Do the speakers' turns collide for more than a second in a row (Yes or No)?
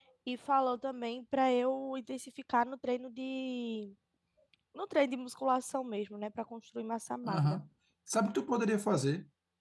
No